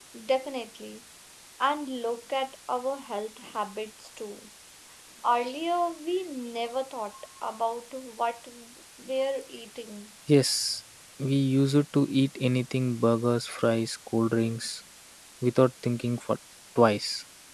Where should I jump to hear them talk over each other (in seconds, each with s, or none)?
none